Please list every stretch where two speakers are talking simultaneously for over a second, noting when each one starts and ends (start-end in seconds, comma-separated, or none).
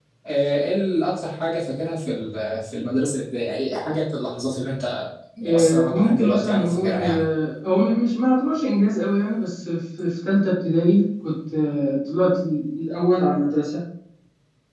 5.5-7.2